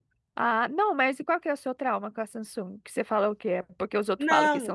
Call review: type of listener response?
taking over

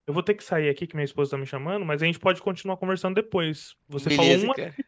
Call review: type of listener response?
listening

